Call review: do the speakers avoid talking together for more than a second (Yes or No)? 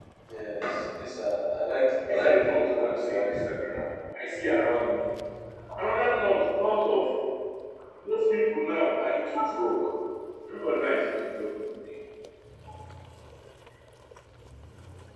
No